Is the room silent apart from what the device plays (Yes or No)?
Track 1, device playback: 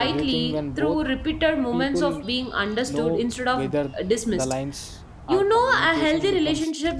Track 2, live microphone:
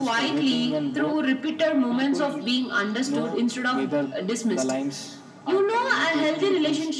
Yes